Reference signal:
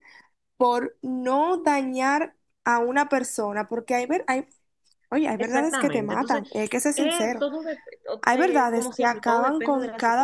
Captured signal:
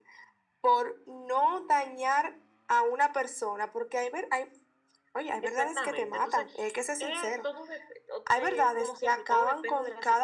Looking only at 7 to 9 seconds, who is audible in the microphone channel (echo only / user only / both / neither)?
echo only